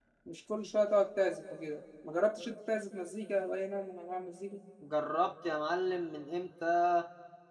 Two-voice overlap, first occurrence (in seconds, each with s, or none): none